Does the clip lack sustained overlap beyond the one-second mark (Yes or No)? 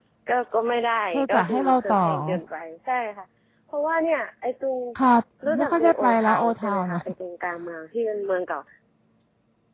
No